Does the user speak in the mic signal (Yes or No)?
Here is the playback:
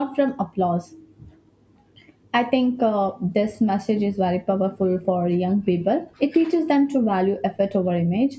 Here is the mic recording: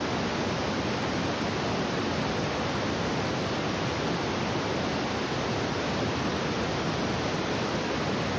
No